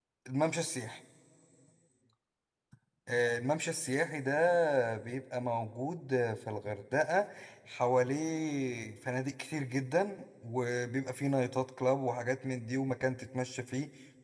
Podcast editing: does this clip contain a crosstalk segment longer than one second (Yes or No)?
No